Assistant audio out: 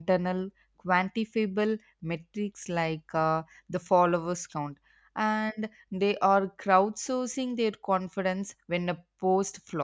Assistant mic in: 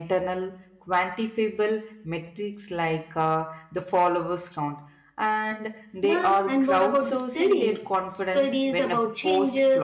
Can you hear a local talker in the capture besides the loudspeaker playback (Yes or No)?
Yes